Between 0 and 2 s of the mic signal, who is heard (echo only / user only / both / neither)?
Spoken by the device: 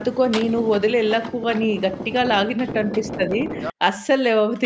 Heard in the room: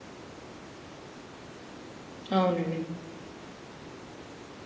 neither